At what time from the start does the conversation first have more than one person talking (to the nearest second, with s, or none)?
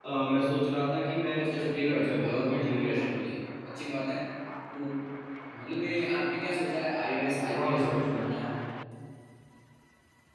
1 s